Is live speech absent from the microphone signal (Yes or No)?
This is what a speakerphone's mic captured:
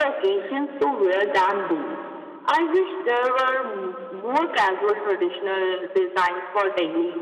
Yes